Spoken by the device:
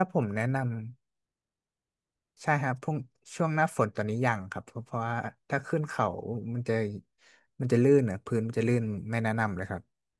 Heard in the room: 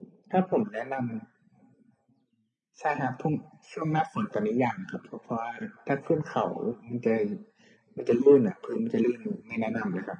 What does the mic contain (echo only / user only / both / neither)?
echo only